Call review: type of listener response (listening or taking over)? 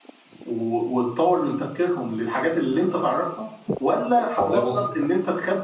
listening